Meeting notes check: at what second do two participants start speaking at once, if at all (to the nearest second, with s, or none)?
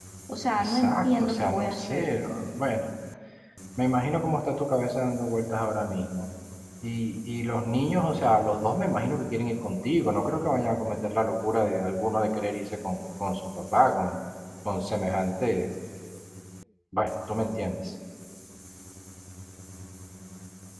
1 s